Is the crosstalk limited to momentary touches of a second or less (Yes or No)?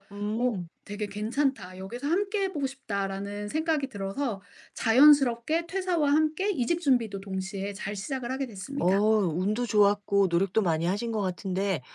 Yes